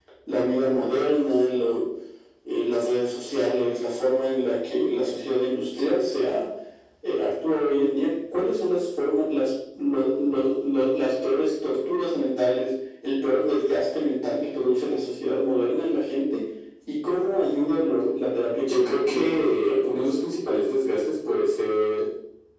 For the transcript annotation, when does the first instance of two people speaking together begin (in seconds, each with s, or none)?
18.6 s